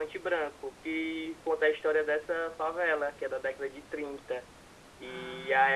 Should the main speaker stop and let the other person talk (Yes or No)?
No